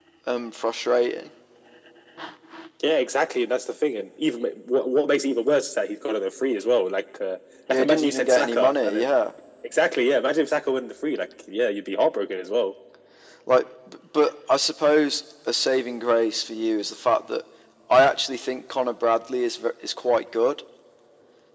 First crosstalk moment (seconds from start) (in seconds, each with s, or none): 7.7 s